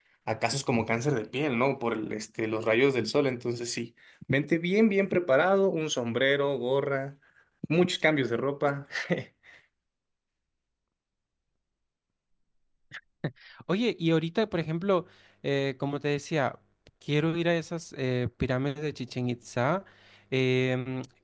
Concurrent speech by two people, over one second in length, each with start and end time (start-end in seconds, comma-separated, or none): none